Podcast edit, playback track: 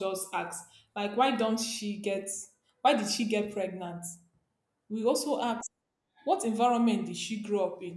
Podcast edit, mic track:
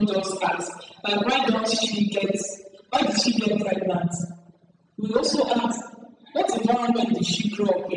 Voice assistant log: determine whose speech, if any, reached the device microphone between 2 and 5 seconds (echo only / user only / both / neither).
echo only